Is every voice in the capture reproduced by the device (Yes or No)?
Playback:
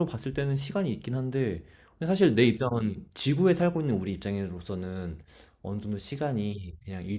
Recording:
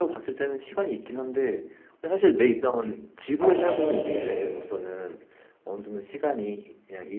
No